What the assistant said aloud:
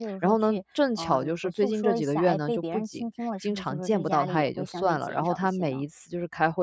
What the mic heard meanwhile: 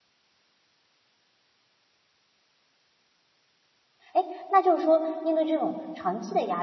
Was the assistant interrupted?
Yes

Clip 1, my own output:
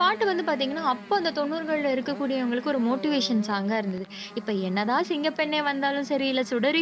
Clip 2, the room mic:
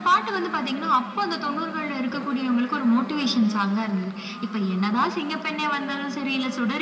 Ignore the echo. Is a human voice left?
No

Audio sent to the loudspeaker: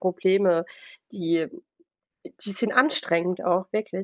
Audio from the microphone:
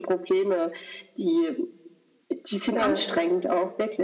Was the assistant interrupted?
Yes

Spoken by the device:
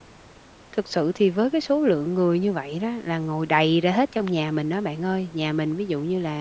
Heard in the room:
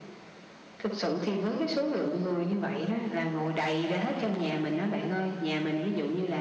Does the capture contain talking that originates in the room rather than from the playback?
No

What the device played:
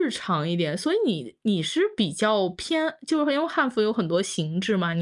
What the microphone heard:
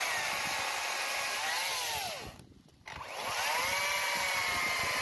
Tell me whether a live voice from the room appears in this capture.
No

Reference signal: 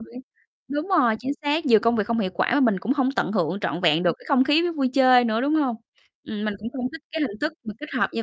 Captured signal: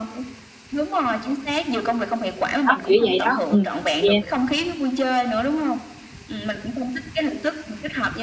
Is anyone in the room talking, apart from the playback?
Yes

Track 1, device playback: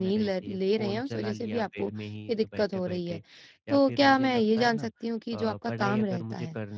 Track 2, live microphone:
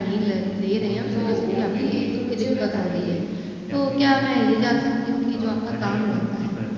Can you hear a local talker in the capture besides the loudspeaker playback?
Yes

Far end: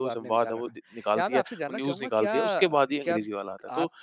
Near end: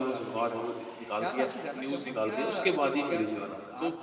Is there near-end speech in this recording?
No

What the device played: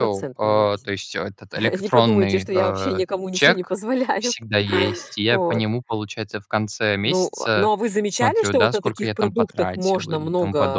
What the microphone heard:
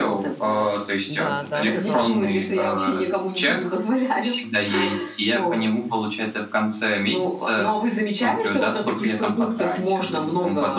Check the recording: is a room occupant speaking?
Yes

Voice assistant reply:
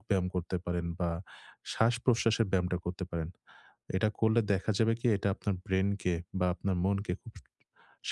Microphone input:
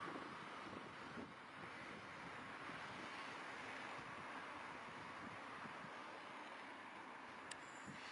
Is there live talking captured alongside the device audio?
No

